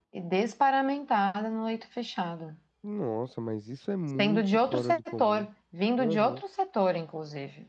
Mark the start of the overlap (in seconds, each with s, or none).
4.2 s